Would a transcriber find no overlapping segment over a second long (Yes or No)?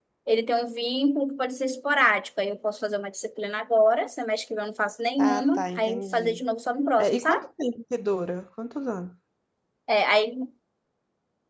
No